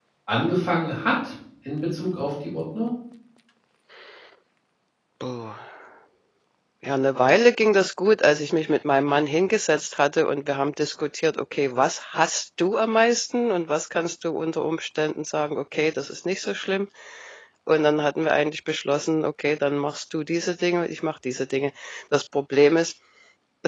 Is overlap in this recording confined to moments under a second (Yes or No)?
Yes